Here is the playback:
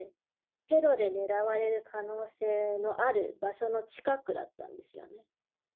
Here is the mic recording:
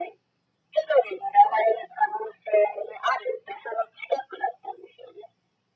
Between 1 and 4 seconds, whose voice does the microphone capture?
echo only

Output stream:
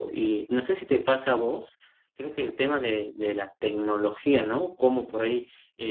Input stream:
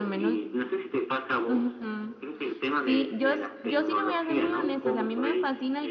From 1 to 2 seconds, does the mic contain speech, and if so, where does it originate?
both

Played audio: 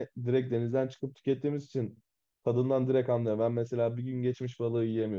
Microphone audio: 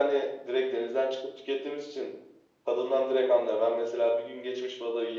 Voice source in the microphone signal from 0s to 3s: echo only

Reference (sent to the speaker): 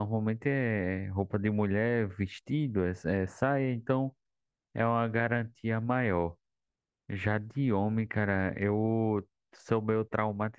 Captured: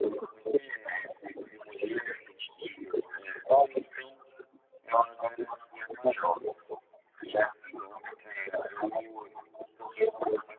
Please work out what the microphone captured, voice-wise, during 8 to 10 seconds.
echo only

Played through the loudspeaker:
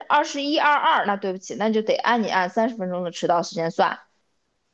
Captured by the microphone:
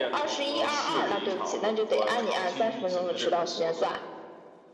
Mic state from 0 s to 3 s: both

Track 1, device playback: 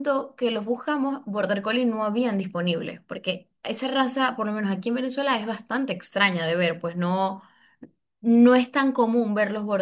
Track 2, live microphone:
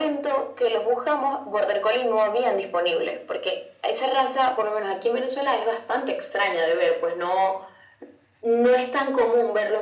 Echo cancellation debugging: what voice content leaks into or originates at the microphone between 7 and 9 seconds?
echo only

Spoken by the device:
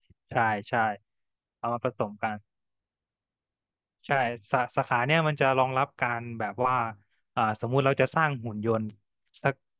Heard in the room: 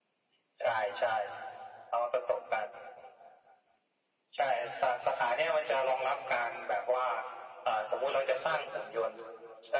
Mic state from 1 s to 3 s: echo only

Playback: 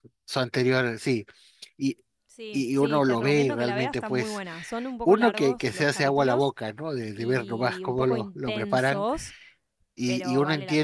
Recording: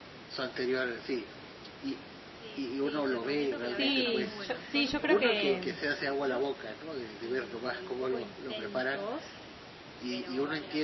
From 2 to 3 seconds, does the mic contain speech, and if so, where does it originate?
echo only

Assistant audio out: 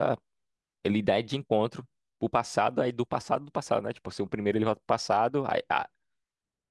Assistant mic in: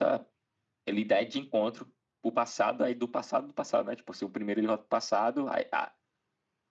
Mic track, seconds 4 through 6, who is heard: echo only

